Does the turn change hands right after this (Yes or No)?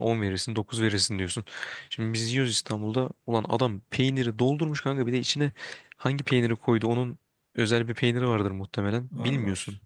No